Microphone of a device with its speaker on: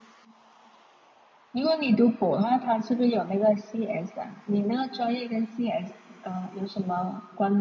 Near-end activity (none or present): none